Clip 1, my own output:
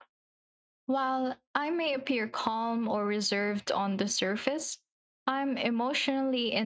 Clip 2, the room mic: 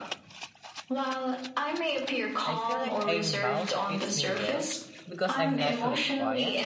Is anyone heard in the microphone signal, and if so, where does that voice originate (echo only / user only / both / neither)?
both